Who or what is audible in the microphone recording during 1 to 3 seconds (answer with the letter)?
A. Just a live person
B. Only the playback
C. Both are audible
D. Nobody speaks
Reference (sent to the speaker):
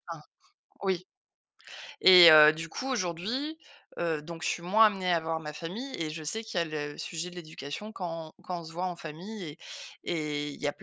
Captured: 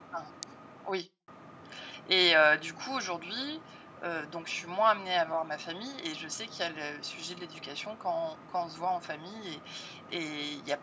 B